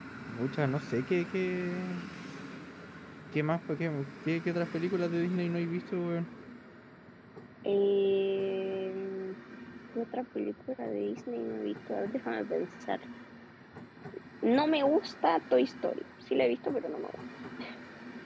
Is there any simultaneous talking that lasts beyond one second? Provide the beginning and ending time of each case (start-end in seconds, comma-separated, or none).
none